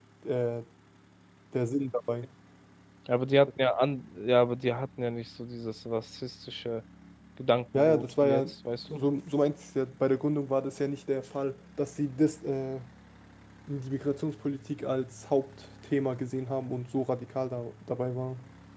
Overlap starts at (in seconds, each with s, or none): 7.8 s